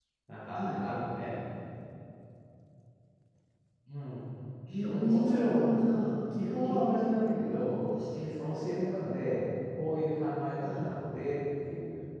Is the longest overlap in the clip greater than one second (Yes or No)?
Yes